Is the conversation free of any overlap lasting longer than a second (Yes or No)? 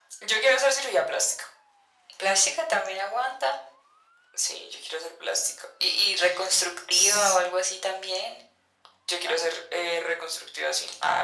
Yes